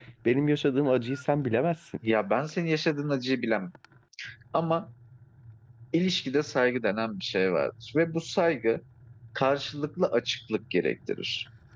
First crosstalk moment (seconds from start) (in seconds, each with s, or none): none